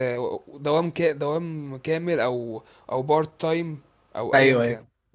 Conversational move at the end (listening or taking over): taking over